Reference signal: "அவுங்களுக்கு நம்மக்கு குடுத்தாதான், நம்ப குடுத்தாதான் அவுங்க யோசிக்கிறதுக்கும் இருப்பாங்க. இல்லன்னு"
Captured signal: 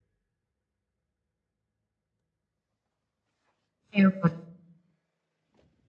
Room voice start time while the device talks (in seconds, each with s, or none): 4.0 s